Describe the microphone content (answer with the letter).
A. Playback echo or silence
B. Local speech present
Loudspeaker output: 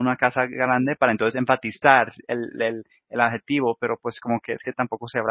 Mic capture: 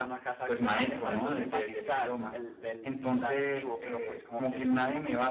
B